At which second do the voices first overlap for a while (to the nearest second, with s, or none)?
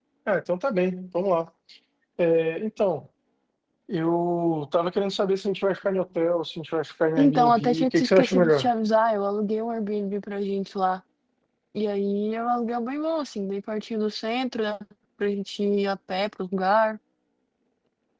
7 s